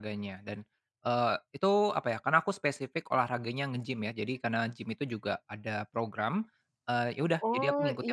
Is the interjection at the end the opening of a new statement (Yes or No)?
Yes